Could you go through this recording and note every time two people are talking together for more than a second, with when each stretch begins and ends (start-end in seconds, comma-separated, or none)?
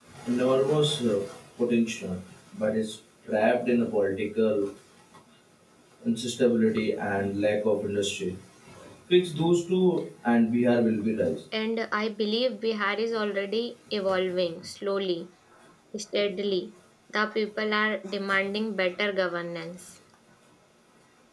none